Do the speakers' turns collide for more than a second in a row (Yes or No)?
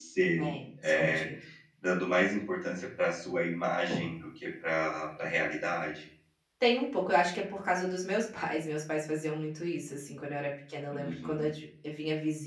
No